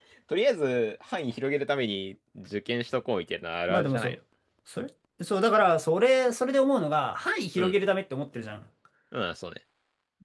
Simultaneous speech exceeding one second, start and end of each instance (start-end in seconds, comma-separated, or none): none